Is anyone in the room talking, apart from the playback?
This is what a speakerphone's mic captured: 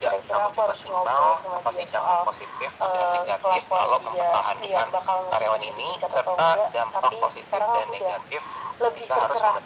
No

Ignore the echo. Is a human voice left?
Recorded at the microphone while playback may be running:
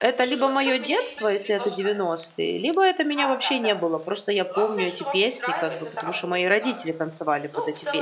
Yes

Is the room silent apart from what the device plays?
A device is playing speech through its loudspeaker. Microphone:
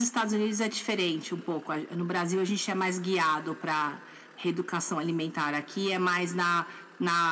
Yes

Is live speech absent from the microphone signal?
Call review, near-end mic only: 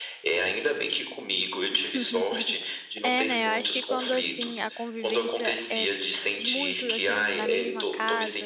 No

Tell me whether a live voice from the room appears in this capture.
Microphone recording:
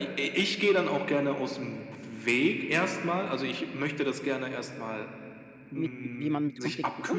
Yes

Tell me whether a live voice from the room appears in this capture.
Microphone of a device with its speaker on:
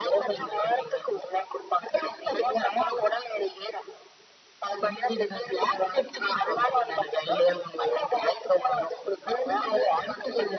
No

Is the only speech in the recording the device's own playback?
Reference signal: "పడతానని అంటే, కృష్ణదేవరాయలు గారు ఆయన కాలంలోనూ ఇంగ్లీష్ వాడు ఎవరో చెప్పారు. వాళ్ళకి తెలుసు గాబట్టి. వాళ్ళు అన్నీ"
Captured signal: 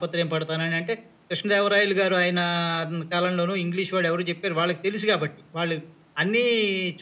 Yes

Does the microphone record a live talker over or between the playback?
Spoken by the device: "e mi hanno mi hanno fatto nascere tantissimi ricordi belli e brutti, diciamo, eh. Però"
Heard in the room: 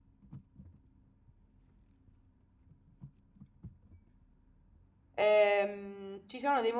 Yes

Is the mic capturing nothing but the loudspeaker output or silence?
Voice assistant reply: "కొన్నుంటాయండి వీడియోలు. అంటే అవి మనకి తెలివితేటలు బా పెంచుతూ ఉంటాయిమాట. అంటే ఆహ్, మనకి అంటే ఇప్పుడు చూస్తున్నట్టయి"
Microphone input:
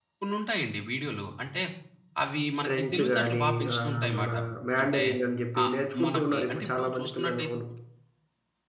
No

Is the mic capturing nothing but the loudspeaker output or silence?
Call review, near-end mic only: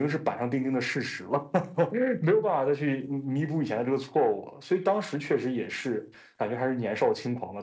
Yes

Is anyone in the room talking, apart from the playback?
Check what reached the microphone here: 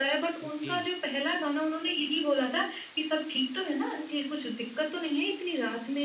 Yes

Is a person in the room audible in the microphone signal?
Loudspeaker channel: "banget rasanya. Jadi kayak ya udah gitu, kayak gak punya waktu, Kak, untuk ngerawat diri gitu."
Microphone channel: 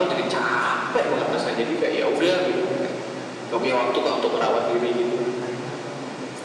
Yes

